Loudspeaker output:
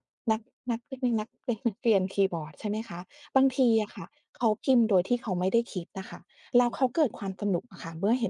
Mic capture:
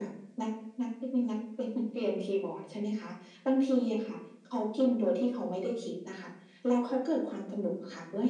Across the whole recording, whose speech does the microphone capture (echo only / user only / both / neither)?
echo only